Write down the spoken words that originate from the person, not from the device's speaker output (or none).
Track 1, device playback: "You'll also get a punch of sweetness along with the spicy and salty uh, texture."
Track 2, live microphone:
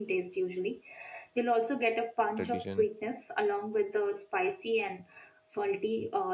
tradition,